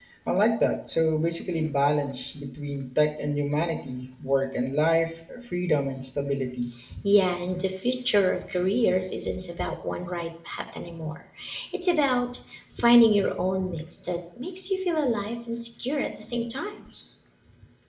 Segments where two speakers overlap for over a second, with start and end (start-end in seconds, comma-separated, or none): none